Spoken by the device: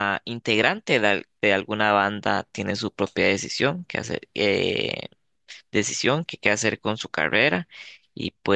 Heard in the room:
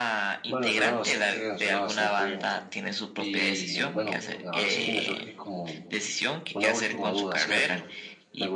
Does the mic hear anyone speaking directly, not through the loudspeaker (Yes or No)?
Yes